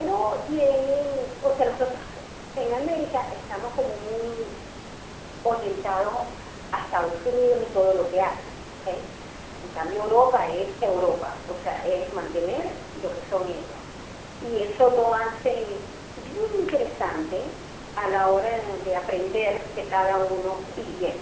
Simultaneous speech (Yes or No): No